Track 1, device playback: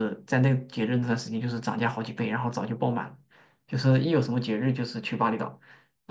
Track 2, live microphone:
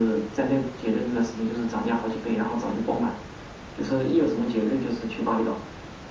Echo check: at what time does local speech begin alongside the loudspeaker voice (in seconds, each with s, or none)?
none